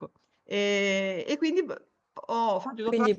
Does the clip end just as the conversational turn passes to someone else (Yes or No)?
Yes